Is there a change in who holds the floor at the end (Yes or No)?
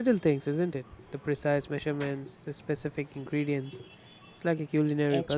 Yes